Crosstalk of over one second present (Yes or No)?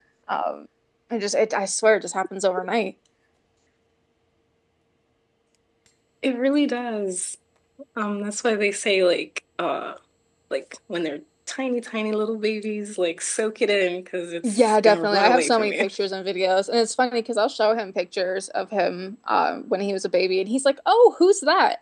Yes